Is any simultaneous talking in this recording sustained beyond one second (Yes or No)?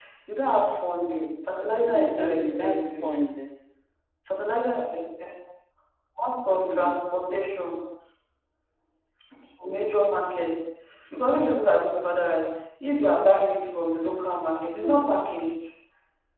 Yes